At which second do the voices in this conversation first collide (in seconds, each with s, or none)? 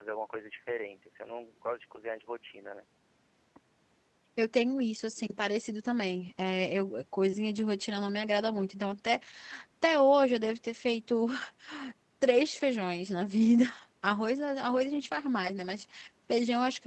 none